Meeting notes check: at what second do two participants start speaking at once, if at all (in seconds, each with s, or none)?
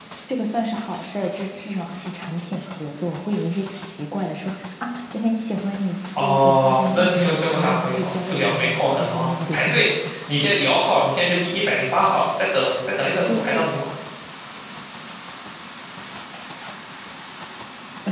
6.2 s